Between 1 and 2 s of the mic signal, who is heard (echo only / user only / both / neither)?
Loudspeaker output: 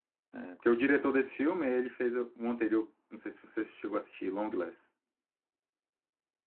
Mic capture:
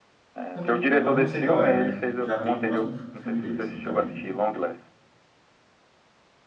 both